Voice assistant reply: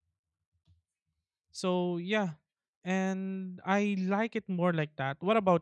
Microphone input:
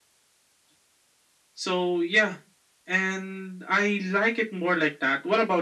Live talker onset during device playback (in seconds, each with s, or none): none